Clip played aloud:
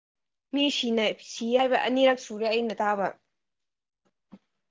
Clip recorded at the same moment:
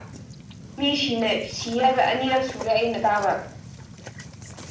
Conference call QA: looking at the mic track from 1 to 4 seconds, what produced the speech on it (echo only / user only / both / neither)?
echo only